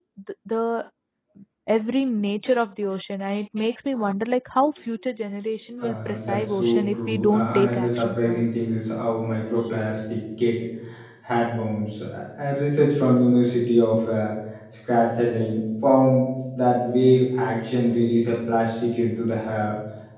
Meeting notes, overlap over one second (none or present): present